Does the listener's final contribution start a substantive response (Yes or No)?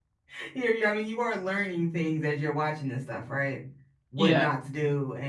No